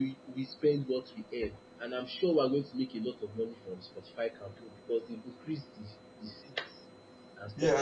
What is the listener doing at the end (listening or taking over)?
taking over